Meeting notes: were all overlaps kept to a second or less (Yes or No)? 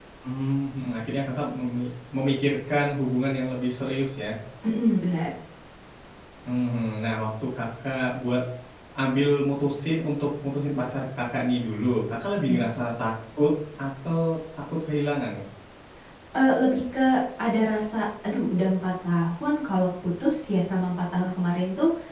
Yes